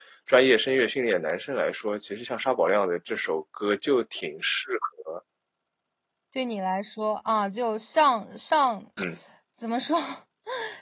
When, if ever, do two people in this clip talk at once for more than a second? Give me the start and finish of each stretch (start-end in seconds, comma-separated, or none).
none